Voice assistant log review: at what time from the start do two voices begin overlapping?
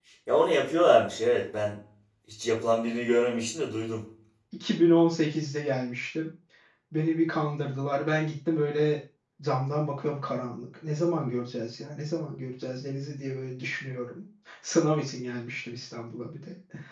none

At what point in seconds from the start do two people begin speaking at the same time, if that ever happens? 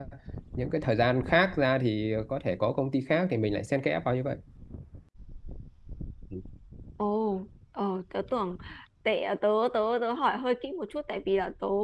none

